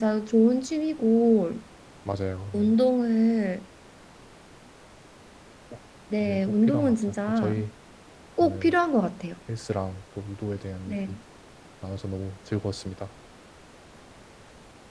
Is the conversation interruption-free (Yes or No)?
No